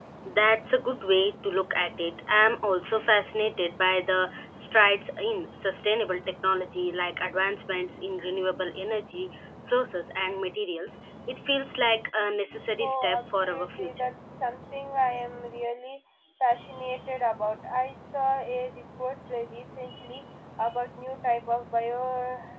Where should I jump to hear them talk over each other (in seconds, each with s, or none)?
12.8 s